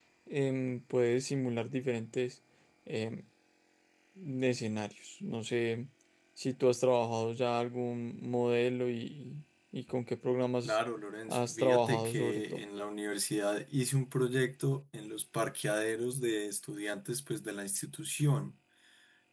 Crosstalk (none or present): present